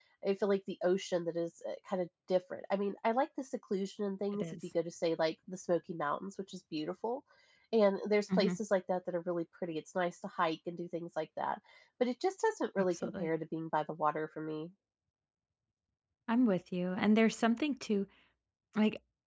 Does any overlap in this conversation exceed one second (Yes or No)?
No